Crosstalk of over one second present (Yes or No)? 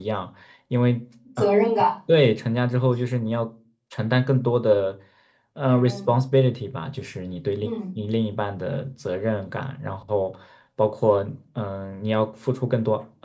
No